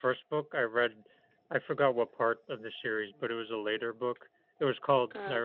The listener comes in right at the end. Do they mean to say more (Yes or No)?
No